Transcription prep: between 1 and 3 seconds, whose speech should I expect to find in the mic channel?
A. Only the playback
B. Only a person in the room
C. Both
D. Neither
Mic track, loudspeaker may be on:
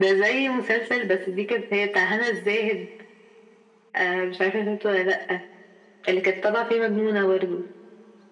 A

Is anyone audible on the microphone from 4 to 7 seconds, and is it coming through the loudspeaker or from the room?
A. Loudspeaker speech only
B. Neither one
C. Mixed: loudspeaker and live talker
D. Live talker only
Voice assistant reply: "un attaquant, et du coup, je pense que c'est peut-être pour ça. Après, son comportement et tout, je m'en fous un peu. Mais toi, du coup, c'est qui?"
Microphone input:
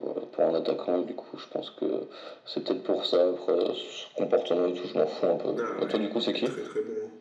C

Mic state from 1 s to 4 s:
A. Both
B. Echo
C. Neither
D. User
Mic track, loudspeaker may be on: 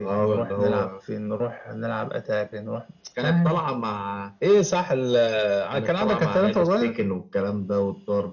B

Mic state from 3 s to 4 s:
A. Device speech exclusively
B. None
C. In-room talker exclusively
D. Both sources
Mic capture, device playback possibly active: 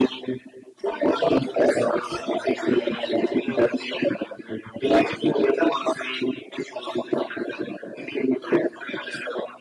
D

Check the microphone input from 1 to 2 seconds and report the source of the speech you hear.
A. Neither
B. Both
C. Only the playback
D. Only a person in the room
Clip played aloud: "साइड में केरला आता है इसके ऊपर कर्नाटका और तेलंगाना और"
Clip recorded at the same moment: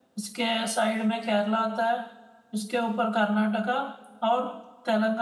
C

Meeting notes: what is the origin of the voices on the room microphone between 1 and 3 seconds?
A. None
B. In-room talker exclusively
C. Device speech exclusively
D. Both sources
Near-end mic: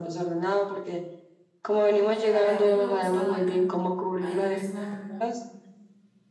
D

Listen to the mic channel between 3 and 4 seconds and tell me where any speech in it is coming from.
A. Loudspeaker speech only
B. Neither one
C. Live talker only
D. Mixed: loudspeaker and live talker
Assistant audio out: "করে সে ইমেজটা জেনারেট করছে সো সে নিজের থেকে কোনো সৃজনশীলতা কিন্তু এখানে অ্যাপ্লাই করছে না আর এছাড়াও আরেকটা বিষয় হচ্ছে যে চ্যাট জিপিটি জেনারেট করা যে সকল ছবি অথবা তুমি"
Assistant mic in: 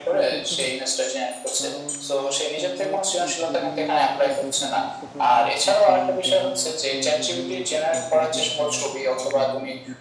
D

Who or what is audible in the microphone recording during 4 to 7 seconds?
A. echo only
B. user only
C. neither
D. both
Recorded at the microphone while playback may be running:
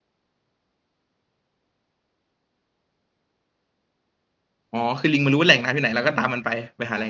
B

